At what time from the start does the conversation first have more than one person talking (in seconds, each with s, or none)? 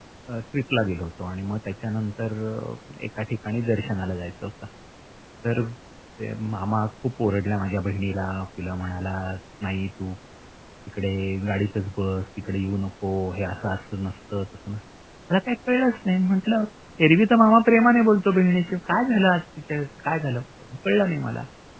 none